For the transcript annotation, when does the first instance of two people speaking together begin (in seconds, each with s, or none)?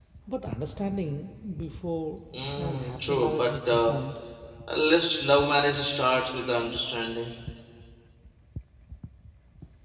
2.3 s